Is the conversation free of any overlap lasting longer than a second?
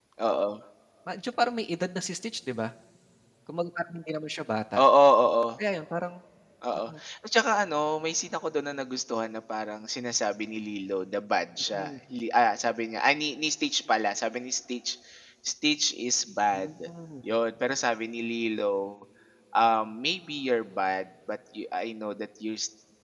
Yes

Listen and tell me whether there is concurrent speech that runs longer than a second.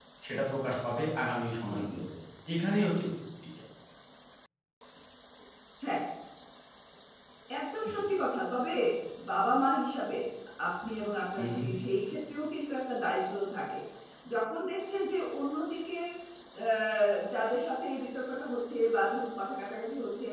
No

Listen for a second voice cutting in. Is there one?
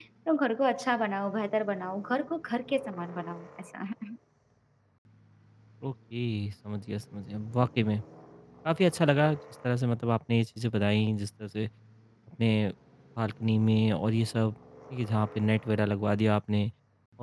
No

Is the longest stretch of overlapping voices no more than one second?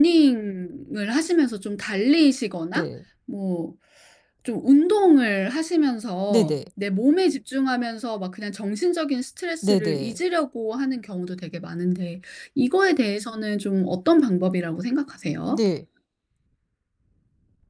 Yes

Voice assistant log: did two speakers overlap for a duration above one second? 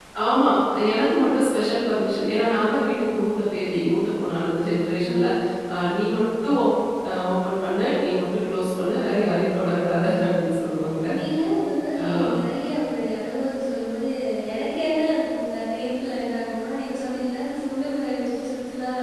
No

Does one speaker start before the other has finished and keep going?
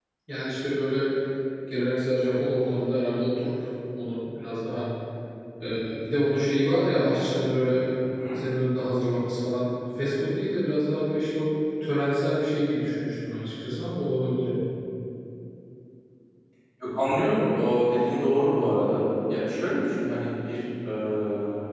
No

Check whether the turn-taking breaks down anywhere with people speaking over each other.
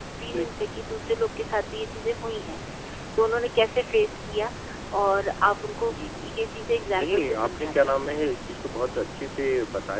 Yes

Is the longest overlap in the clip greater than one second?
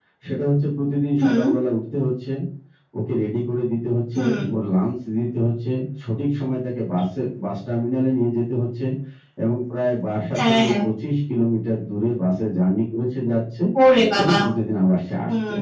No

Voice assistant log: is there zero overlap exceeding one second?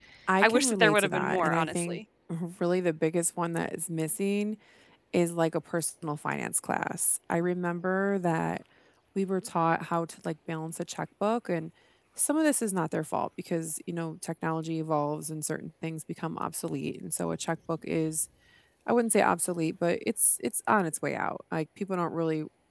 No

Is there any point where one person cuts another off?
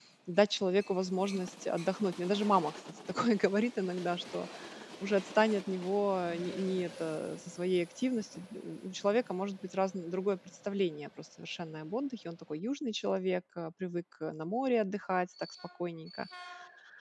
No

